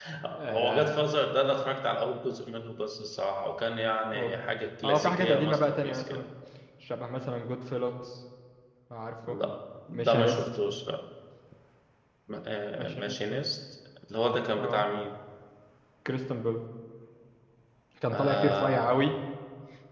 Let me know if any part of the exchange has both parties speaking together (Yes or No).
Yes